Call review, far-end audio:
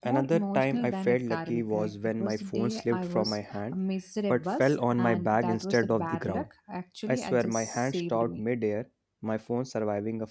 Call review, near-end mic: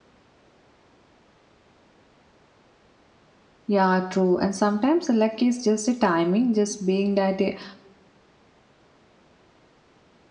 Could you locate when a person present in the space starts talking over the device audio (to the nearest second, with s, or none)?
4 s